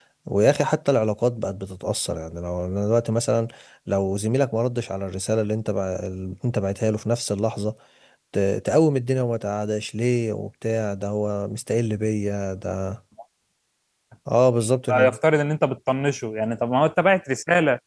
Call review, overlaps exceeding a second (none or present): none